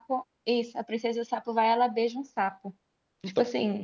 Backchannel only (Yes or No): No